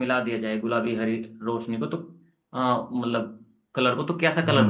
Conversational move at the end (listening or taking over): taking over